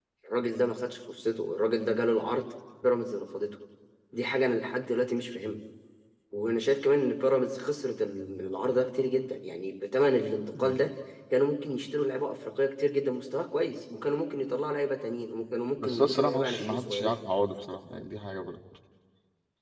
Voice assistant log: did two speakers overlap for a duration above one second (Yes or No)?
Yes